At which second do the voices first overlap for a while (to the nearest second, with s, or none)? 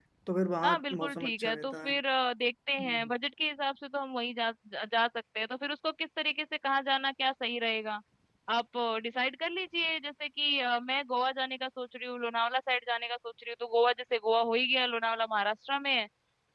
1 s